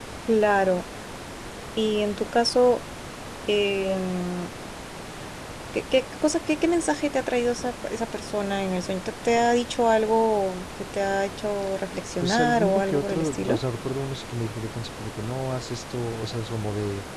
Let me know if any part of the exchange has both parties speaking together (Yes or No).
Yes